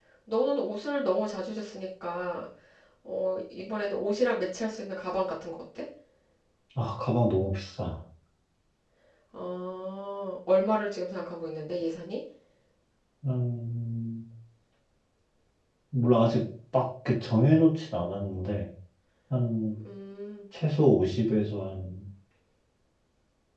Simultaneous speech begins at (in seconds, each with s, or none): none